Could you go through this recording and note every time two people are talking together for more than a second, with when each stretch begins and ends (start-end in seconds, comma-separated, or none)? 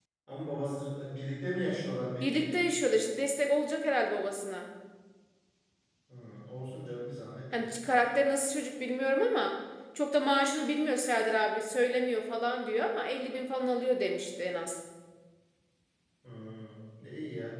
none